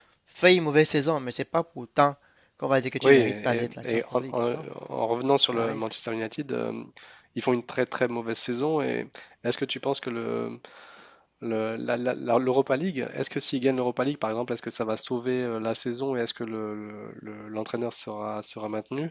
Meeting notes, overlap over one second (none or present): present